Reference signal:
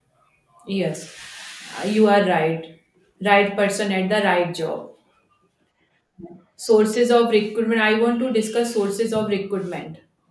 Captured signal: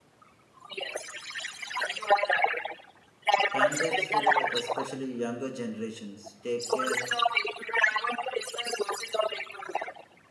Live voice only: Candidates today, especially younger generations, take care

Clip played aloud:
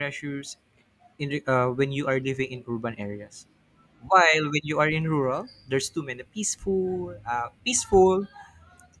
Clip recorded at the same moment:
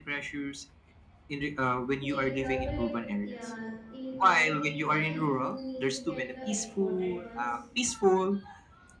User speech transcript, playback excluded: Here in urban, a- yeah, in urban area, you need to get the exported ones,

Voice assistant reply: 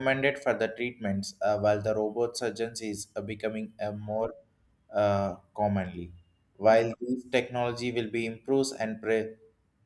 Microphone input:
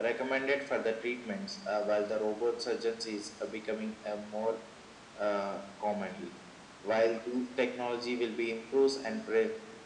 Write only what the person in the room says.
none

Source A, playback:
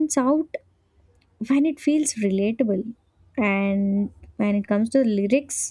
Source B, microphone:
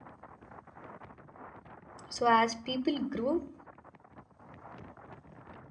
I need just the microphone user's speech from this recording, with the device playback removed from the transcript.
so as people grow

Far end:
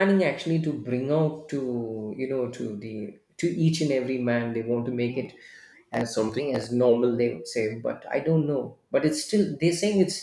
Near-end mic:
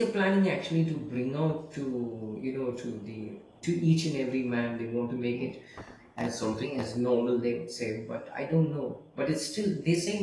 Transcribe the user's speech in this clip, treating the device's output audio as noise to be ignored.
none

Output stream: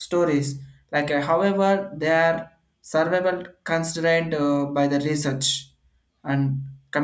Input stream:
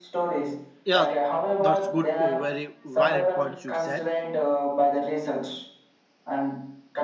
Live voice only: yeah, that's good, oh, very valid points you said.

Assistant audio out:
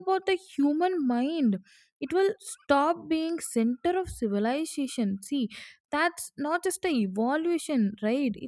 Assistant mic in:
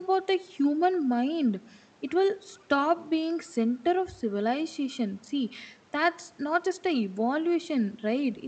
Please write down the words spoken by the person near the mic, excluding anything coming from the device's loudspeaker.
none

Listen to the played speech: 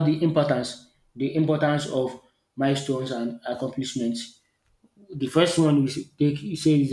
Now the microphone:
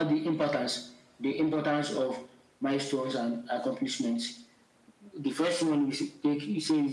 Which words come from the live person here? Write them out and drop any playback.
none

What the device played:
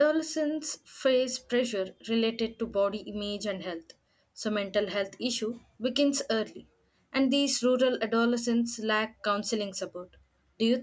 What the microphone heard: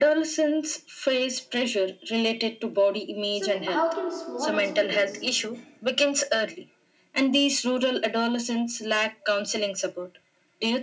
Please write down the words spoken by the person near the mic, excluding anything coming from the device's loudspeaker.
So, how can small hospitals

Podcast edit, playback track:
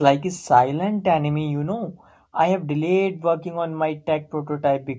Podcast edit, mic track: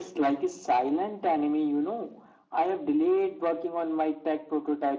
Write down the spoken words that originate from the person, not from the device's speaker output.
none

